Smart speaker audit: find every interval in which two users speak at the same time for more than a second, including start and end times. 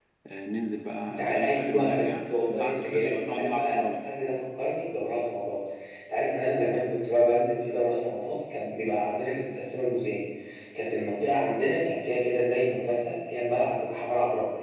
1.1-3.9

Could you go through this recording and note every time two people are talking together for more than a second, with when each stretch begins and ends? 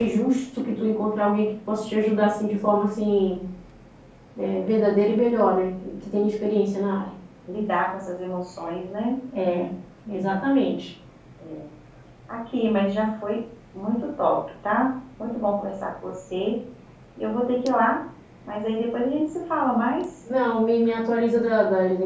none

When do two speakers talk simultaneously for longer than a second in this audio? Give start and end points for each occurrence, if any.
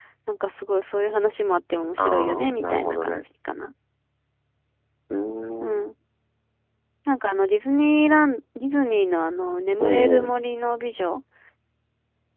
2.0-3.2

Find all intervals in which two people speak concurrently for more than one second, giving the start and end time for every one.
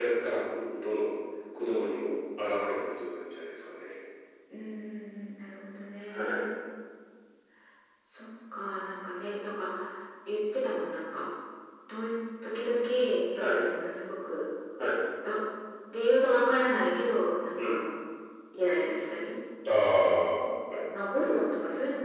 none

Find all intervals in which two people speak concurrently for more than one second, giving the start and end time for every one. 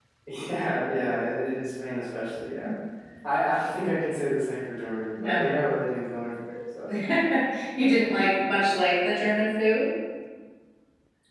none

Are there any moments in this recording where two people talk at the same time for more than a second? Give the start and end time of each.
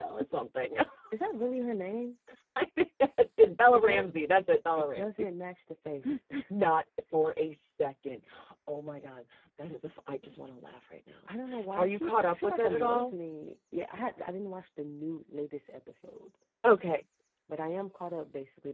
3.7-5.3, 11.8-13.2

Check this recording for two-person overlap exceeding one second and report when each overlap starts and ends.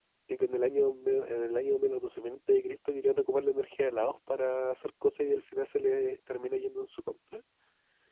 none

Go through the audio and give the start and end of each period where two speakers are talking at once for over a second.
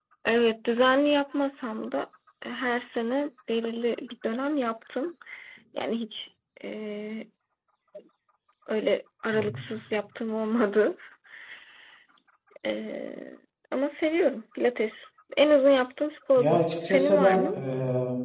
16.4-17.6

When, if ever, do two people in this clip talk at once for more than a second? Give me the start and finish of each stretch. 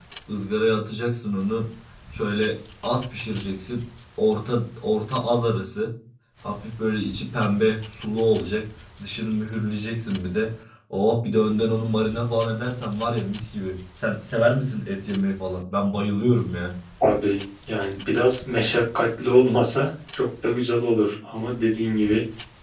none

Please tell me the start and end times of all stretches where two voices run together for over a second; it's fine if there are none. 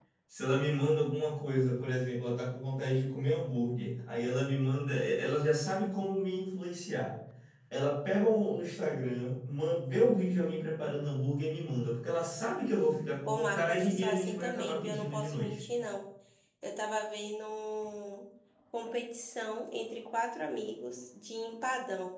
13.3-15.6

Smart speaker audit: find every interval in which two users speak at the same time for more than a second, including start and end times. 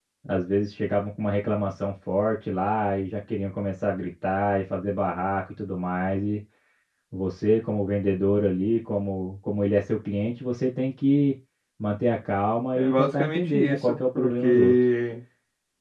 12.8-14.7

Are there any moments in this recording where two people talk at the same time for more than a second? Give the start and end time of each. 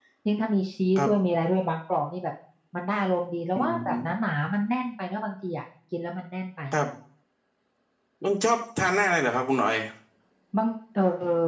none

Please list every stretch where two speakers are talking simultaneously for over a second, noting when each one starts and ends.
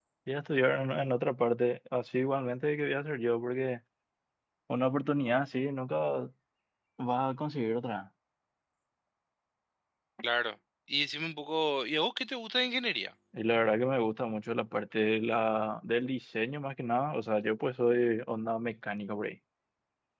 none

